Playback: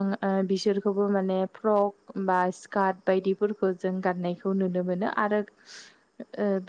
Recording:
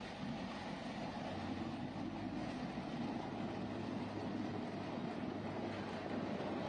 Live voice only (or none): none